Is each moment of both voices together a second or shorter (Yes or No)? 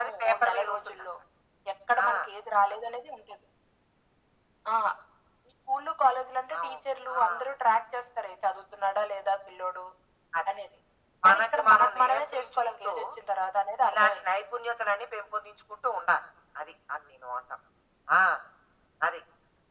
No